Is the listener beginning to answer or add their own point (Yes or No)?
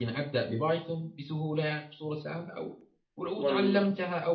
No